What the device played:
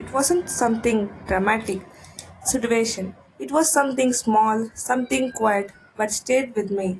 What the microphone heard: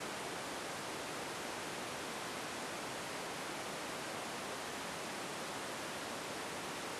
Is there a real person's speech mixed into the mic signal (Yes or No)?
No